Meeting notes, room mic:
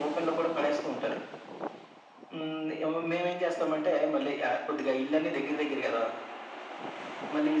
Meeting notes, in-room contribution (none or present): none